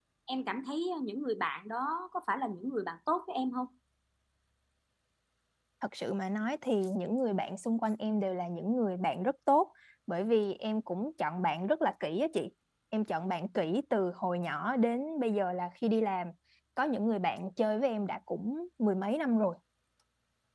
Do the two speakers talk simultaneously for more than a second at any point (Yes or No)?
No